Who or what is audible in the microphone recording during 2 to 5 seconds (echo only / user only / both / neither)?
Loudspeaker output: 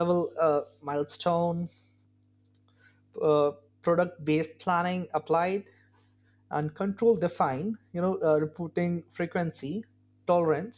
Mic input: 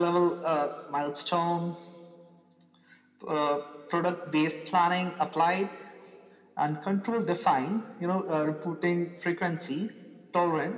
echo only